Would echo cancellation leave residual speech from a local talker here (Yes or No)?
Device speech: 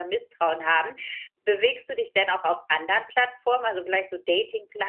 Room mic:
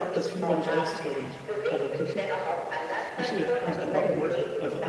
Yes